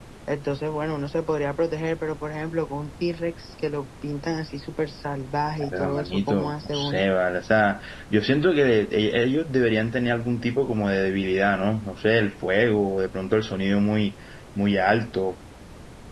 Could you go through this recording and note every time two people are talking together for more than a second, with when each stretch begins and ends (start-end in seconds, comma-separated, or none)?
5.7-7.0